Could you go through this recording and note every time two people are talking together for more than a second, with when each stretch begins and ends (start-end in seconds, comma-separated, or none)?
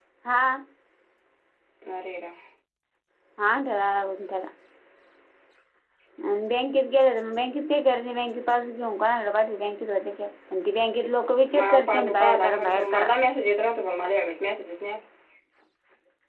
11.6-13.1